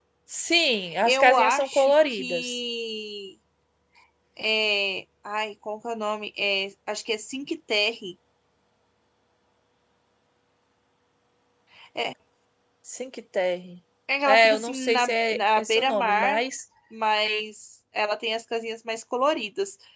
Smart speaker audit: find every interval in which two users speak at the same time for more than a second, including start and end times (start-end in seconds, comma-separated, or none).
1.1-2.6, 14.3-16.4